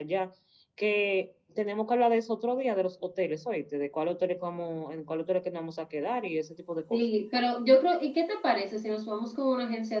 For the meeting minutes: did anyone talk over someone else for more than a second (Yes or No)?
No